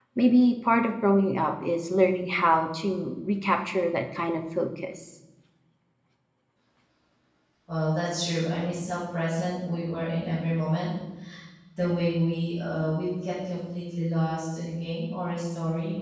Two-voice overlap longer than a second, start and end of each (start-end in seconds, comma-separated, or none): none